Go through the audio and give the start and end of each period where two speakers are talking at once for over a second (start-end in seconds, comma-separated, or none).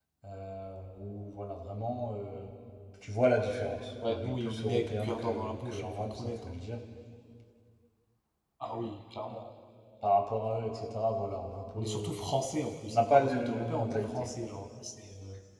4.1-6.5, 12.9-14.3